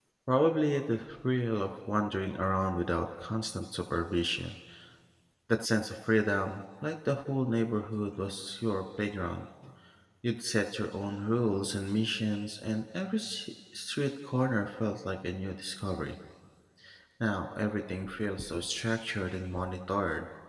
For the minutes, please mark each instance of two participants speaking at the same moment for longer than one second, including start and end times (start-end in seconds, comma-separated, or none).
none